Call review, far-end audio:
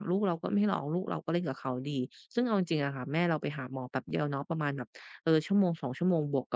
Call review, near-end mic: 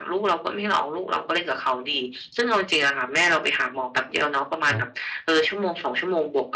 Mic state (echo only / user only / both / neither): both